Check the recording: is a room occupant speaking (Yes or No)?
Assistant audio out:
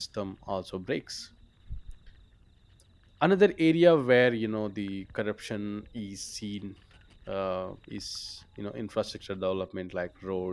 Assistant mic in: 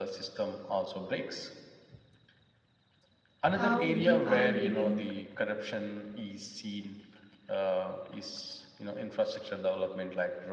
Yes